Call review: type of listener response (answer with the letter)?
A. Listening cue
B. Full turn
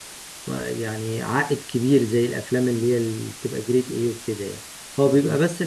A